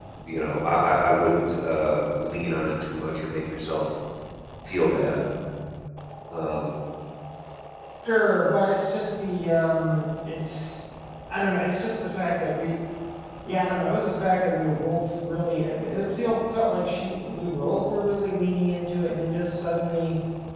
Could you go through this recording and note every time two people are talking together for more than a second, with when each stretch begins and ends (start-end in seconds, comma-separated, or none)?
none